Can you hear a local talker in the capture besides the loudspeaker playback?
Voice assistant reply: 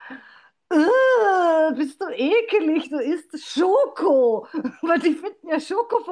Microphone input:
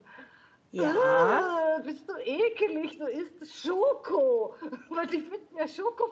Yes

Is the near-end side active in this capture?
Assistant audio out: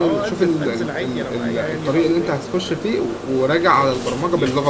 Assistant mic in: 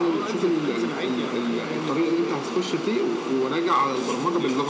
No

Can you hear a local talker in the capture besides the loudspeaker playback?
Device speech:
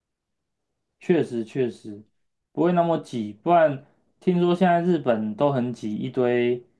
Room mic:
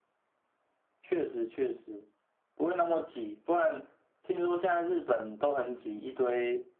No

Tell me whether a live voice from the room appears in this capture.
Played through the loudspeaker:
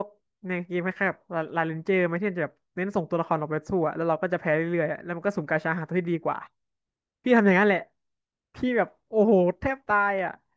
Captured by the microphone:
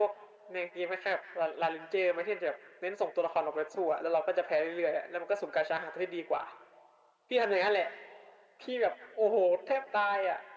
No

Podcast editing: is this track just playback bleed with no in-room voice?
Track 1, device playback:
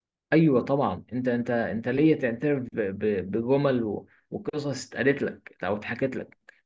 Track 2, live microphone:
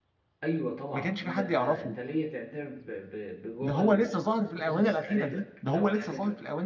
No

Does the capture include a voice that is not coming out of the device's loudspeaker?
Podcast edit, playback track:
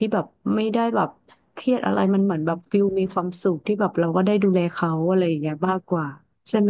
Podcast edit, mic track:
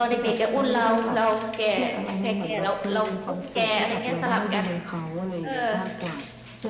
Yes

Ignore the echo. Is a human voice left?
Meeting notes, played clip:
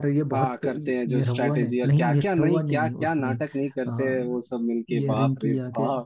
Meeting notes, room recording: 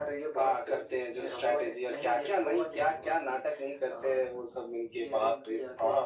No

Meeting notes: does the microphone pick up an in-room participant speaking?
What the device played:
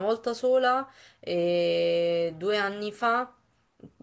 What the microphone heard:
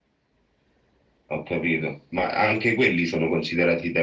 Yes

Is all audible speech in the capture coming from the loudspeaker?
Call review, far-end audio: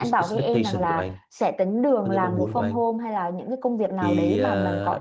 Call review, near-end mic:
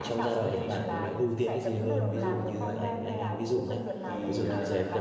No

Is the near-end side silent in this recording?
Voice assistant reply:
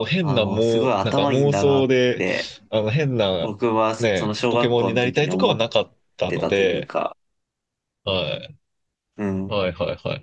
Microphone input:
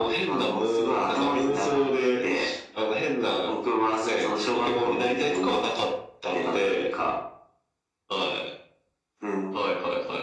Yes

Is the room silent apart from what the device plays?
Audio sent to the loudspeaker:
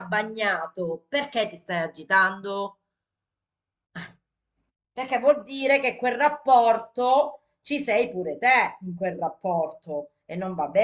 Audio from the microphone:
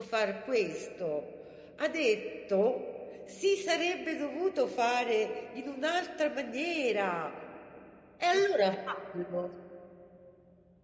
No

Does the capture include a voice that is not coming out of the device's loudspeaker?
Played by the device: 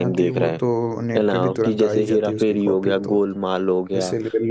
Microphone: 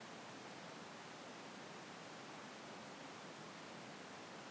No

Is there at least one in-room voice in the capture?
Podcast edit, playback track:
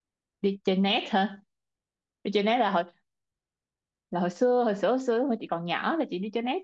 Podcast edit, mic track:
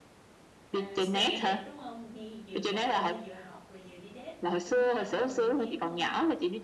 Yes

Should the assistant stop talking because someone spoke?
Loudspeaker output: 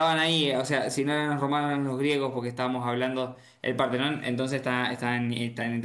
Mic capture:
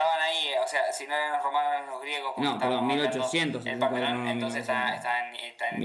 Yes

